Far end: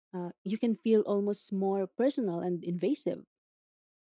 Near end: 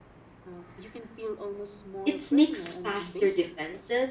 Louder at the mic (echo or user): user